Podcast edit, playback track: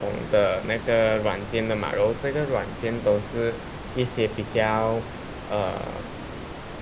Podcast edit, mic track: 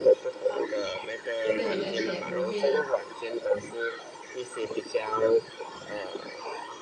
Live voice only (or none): 对，而且我会